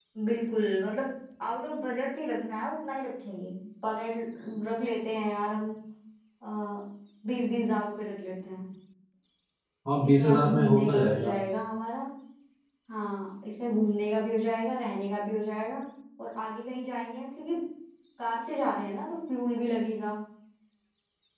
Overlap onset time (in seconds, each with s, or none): 10.0 s